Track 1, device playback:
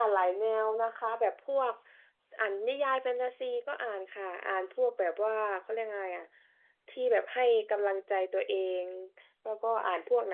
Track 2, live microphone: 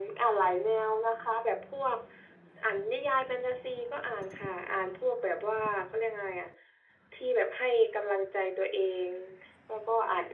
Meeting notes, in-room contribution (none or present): none